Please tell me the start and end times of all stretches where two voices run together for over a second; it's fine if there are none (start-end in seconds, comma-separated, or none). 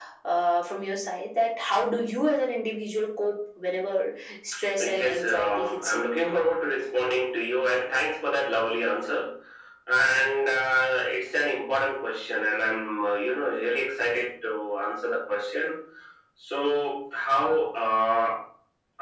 4.8-6.1